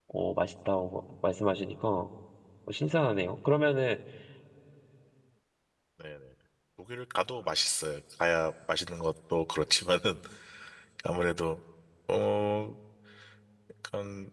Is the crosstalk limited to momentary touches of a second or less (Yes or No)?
Yes